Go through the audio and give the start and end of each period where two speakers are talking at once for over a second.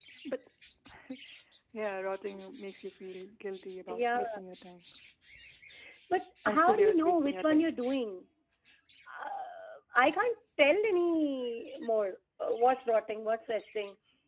6.4-7.7

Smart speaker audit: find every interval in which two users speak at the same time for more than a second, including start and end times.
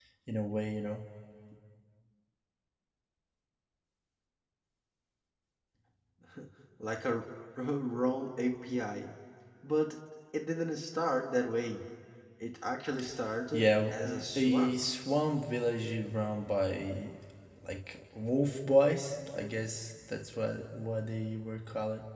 13.5-14.8

